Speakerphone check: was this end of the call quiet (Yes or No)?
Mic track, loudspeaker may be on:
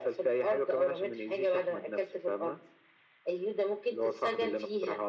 Yes